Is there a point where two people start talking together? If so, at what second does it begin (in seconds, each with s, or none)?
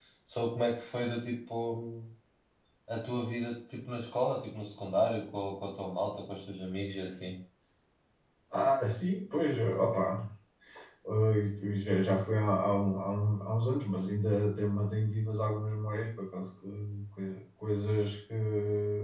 none